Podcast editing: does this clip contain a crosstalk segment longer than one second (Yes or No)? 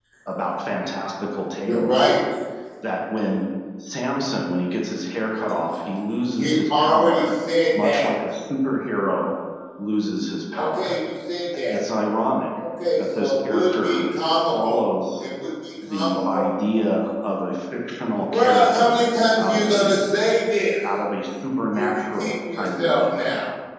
Yes